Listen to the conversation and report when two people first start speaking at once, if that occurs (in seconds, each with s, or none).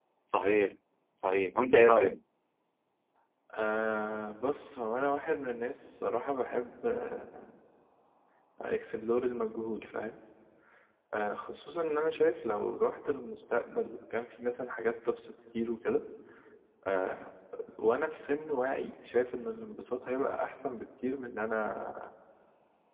none